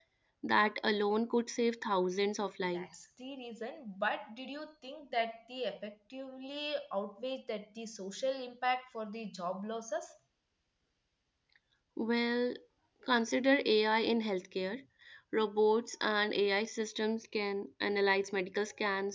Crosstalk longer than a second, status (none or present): none